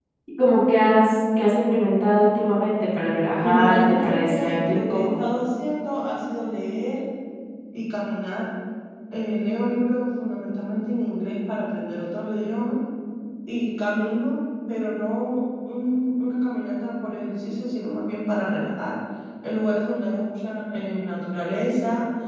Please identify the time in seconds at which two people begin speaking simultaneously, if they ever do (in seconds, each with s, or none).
3.4 s